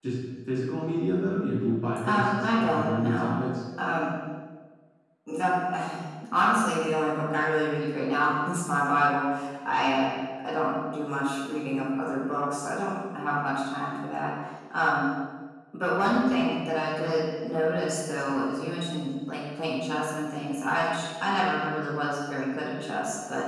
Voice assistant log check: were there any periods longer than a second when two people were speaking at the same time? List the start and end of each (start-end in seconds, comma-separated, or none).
2.0-3.3